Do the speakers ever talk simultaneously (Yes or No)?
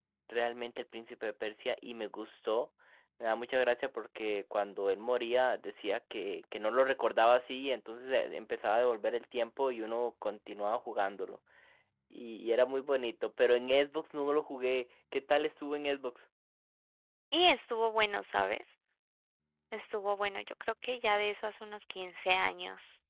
No